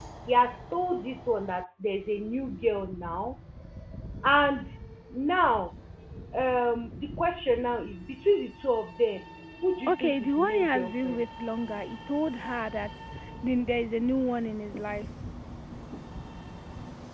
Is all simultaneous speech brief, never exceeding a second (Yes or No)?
No